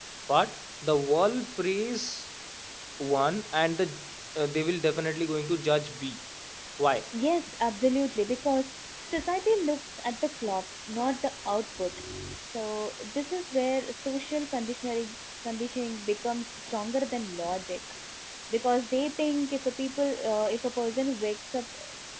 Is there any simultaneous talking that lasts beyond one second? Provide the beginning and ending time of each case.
none

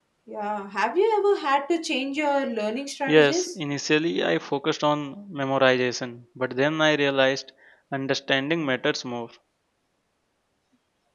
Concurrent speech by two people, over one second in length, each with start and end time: none

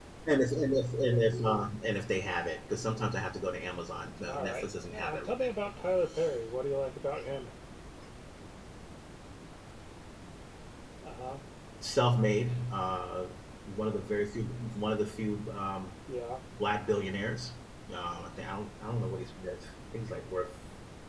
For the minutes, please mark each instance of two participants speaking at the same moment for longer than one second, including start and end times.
4.3-5.5

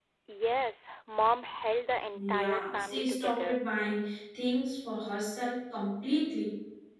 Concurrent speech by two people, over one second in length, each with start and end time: 2.1-3.6

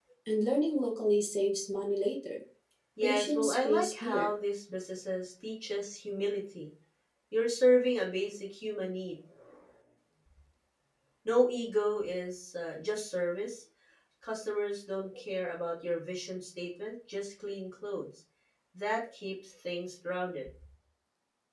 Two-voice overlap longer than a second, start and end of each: 3.0-4.3

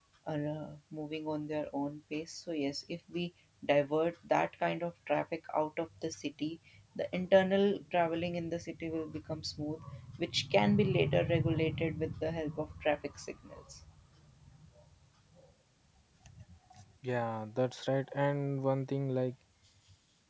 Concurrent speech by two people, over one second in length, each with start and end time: none

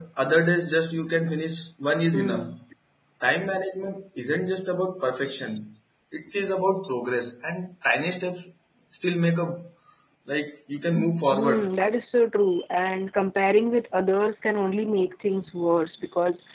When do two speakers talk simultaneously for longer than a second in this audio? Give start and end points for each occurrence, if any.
none

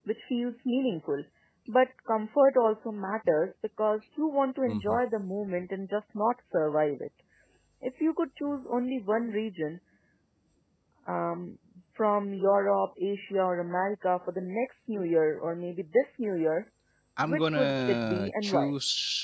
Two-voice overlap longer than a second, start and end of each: 17.2-18.7

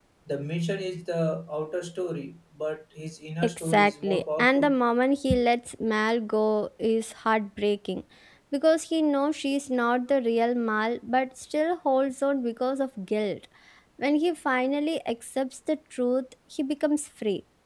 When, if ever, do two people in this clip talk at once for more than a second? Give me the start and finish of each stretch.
3.4-4.8

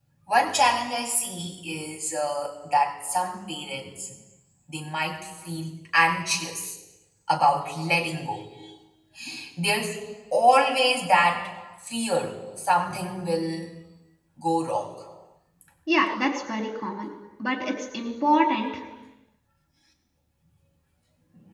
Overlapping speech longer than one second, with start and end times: none

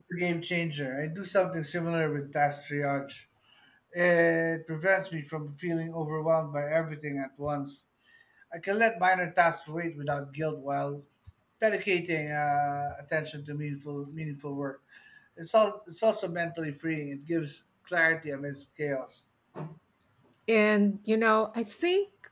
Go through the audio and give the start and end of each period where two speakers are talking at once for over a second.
none

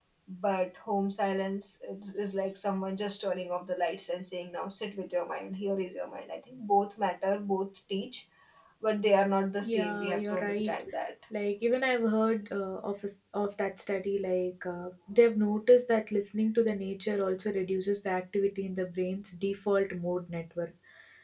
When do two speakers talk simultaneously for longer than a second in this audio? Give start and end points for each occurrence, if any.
9.6-10.8

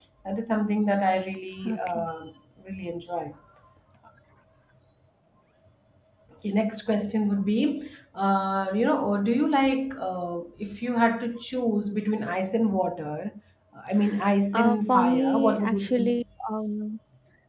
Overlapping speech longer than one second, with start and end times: 14.5-16.2

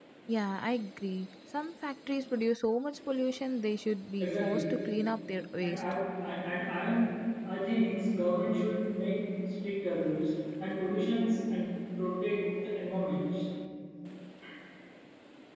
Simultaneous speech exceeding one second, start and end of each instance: none

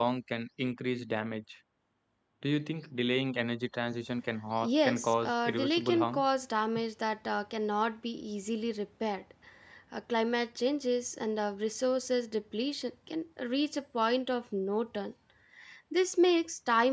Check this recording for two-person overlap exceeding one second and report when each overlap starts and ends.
4.6-6.2

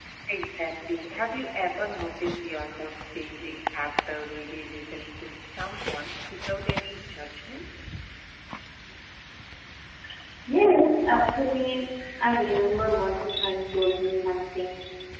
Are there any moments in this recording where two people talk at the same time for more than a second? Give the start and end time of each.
none

